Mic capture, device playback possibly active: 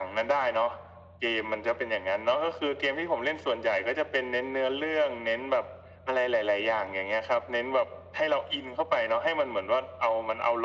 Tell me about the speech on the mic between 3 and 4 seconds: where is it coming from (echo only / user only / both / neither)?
echo only